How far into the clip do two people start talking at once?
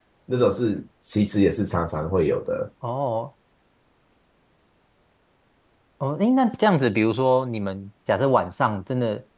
none

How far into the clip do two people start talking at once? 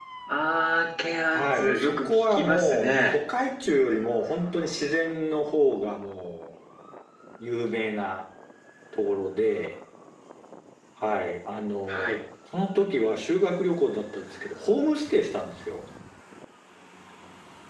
1.3 s

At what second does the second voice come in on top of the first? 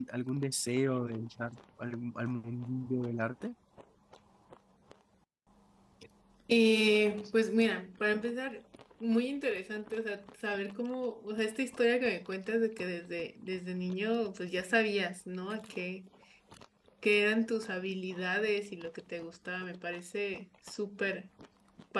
none

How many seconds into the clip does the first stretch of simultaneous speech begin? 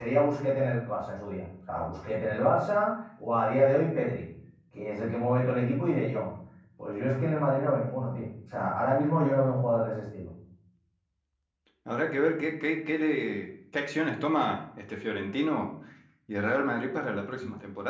none

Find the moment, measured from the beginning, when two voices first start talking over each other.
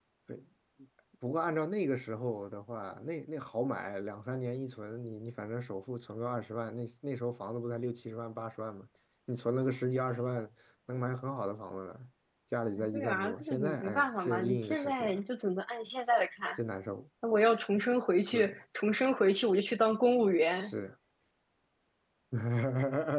12.9 s

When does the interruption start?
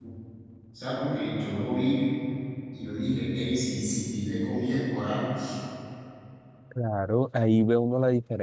none

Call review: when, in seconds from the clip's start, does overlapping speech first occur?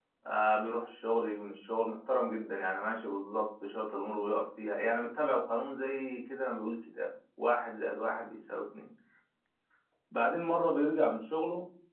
none

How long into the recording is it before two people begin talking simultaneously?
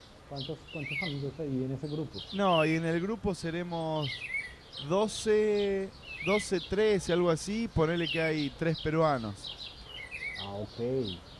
none

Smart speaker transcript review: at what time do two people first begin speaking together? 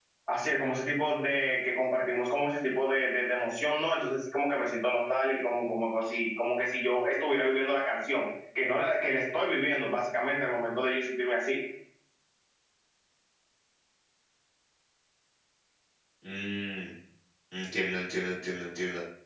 none

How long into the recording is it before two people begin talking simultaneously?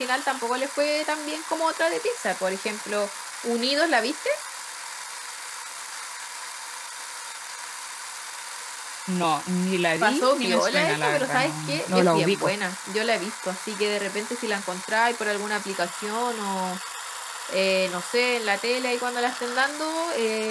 10.0 s

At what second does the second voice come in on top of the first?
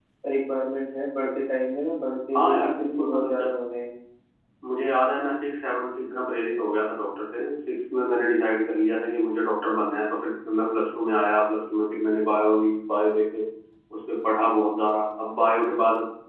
2.3 s

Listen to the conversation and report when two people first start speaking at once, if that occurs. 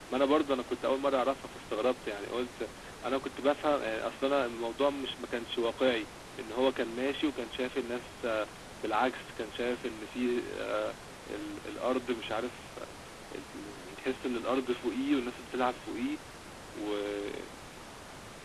none

